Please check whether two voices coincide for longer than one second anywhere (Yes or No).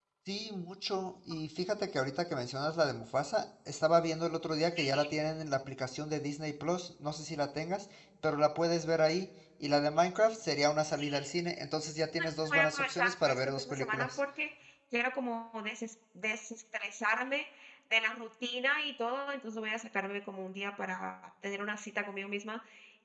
Yes